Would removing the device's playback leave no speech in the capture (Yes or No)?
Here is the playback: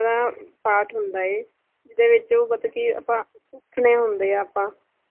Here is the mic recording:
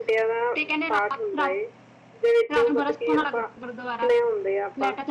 No